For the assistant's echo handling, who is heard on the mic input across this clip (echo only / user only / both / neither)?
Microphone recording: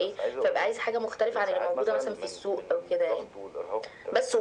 echo only